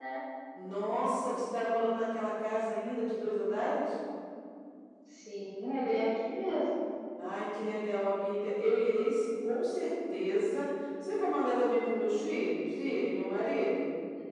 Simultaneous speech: No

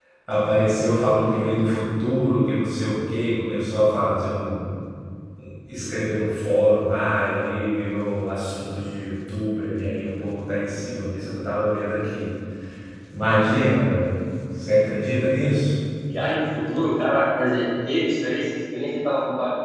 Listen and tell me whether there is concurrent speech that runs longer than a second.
No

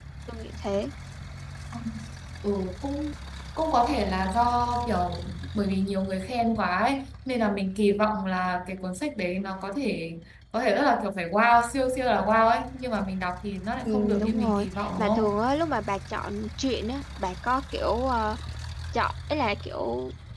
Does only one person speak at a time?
No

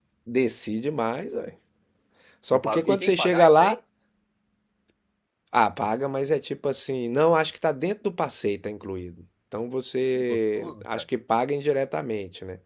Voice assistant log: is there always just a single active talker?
No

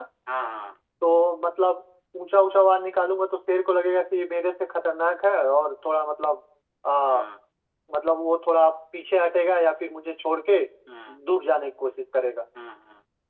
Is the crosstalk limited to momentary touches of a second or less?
Yes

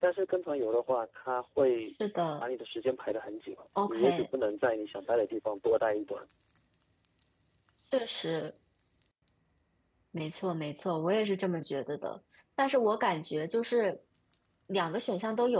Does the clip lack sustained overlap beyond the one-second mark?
Yes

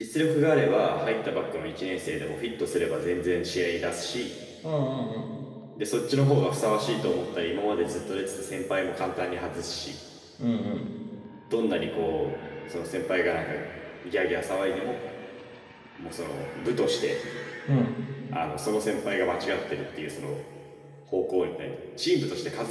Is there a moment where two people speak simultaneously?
No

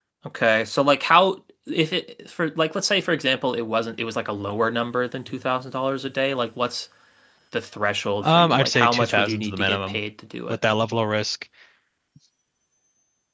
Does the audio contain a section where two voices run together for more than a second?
Yes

